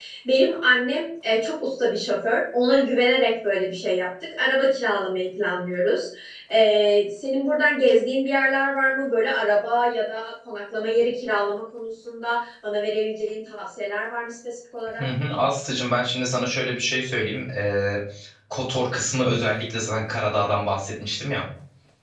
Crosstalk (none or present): none